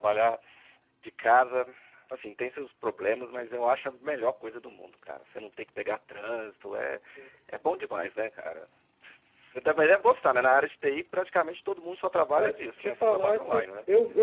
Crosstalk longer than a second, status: present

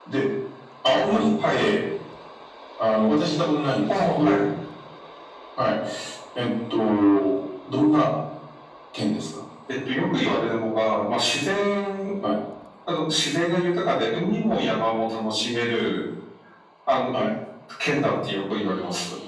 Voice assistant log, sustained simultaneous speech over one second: none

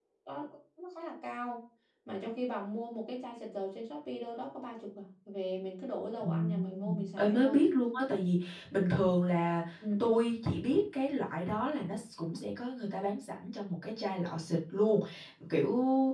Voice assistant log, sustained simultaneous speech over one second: present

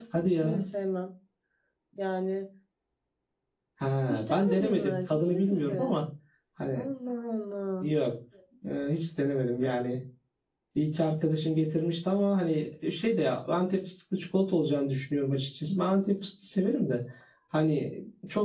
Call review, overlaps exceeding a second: present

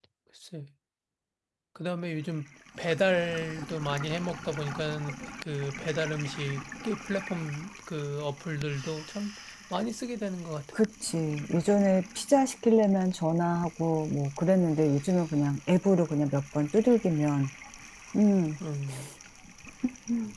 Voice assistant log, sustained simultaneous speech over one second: none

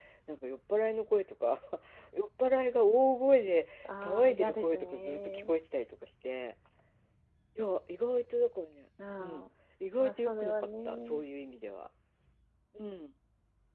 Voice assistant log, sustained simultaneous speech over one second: present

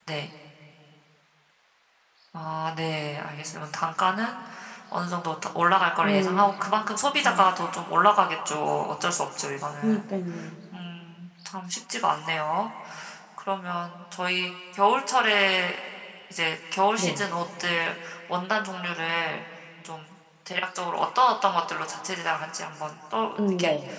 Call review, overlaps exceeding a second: none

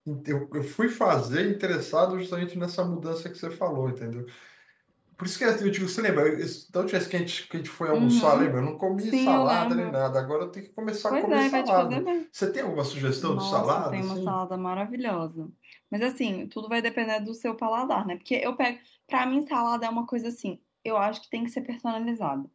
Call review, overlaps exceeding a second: present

